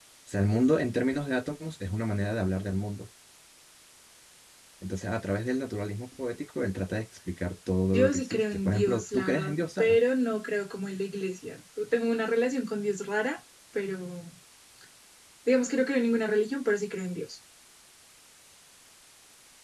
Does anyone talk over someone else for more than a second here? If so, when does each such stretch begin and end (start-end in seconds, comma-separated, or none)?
7.9-10.0